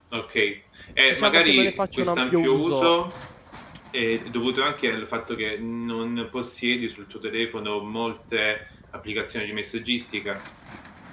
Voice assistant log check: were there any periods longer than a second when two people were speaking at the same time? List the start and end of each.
1.1-2.9

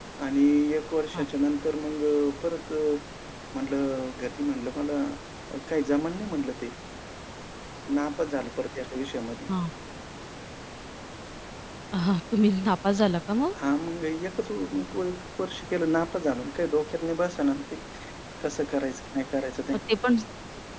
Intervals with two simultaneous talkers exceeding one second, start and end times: none

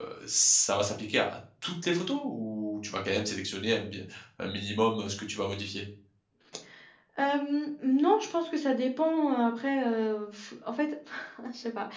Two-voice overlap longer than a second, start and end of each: none

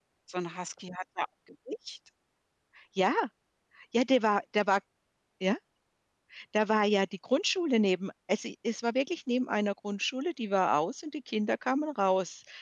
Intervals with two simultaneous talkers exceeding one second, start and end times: none

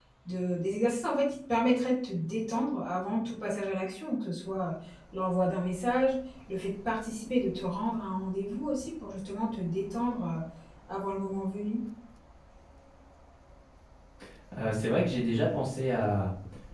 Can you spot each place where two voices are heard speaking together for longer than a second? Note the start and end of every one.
none

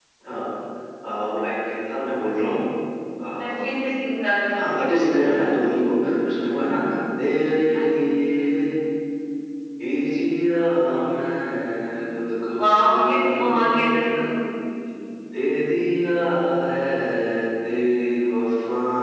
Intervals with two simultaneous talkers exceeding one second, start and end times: 12.6-14.0

